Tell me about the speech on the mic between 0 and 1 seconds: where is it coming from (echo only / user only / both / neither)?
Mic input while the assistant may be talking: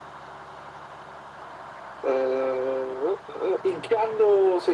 neither